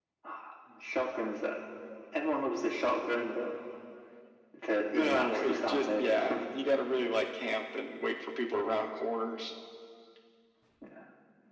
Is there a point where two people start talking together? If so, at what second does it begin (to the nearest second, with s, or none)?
5 s